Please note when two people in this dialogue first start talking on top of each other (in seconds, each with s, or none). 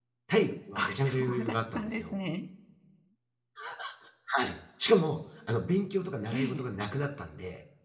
0.8 s